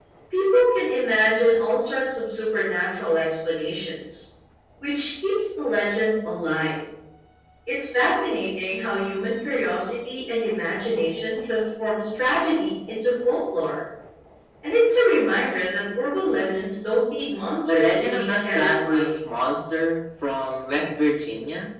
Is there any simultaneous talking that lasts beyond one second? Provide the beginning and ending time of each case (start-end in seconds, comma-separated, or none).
17.7-19.1